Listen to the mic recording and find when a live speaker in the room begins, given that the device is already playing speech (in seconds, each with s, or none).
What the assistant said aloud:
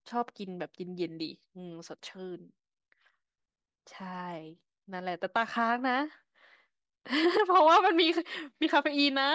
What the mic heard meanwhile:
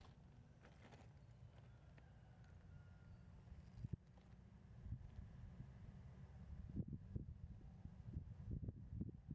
none